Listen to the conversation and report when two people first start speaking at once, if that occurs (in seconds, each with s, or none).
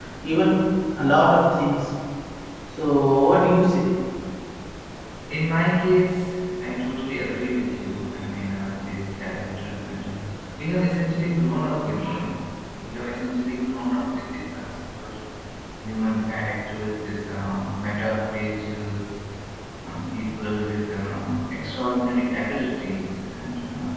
none